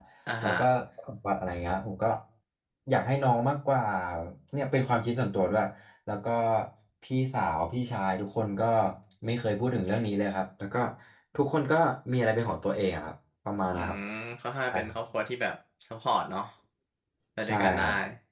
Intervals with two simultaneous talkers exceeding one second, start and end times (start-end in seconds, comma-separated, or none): none